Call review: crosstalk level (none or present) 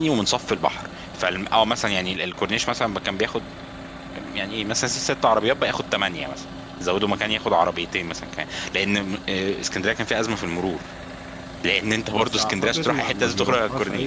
present